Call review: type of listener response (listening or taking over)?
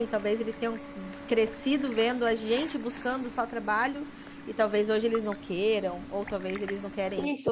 taking over